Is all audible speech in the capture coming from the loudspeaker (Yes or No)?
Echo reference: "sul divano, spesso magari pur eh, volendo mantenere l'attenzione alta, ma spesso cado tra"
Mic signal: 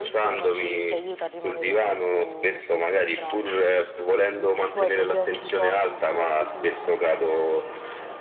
No